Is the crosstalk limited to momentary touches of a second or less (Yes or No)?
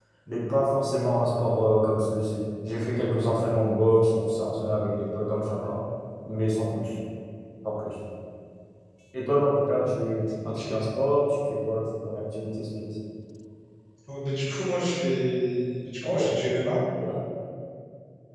Yes